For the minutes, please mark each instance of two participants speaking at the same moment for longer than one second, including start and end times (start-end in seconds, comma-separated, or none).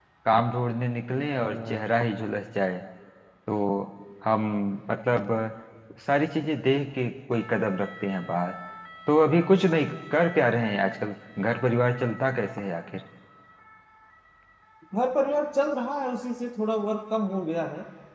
none